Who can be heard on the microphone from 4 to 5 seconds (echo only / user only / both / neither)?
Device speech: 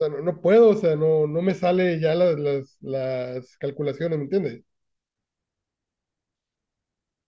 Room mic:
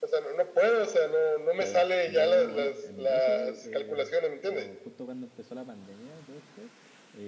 both